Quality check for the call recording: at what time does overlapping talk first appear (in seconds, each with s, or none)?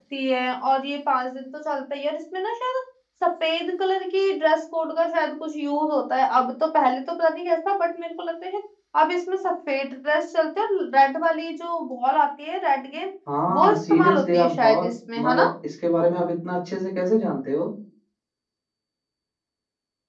13.5 s